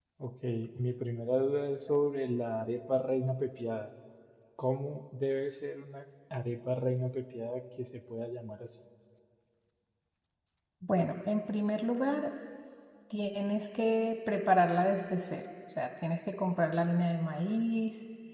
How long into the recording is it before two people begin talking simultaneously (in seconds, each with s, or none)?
none